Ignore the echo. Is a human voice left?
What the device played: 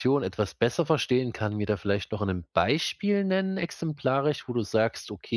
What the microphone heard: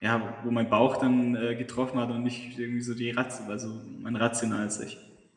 Yes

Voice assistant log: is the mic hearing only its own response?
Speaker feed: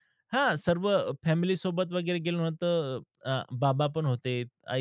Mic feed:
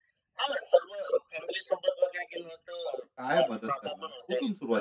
No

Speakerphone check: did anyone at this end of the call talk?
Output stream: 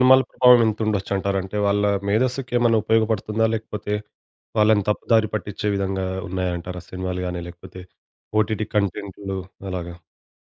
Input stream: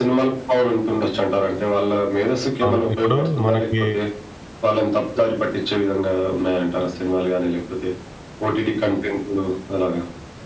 Yes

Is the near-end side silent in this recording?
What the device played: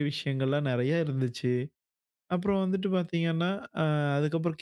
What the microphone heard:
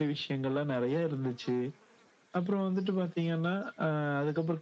Yes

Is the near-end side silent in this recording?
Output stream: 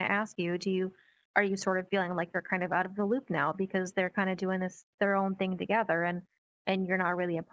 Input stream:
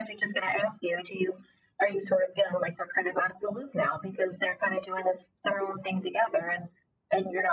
Yes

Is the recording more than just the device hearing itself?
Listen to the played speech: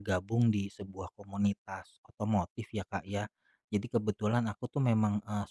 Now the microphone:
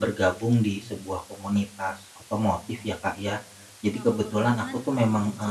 Yes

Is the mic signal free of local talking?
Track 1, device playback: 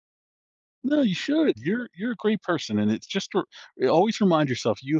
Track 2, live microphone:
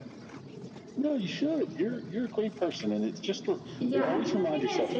No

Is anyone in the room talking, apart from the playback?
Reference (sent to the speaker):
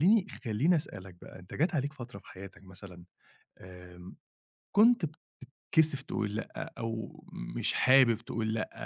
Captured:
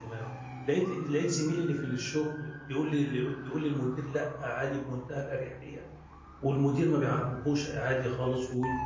Yes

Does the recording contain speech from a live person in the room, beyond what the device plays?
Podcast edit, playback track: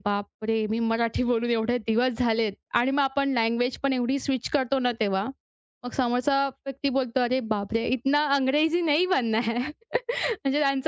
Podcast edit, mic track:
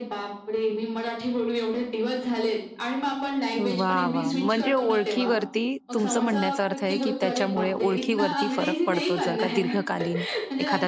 Yes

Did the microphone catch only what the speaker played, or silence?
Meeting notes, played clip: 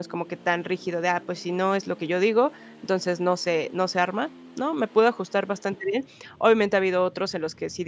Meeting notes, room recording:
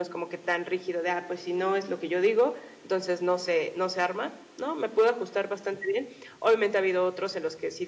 Yes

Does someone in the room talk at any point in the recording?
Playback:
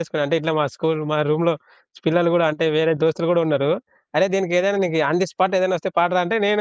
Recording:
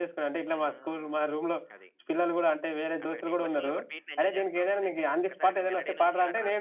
Yes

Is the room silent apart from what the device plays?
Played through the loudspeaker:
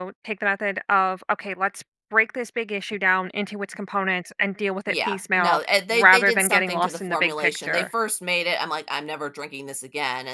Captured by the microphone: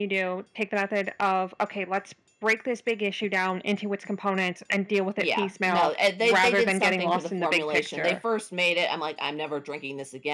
Yes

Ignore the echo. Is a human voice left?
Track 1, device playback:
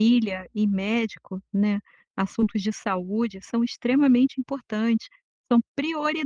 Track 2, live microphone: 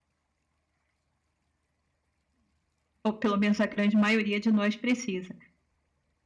Yes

